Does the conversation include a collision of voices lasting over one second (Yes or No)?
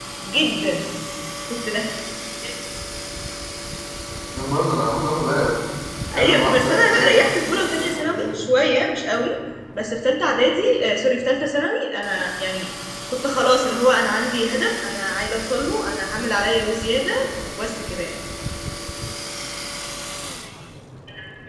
Yes